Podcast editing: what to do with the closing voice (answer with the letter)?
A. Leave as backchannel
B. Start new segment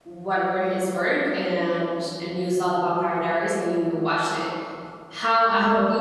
A